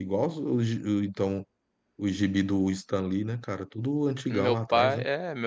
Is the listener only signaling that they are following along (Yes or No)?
No